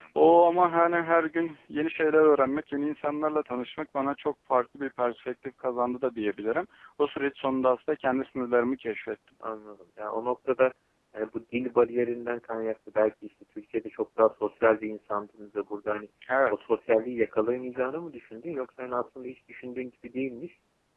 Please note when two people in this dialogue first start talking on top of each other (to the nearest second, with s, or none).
none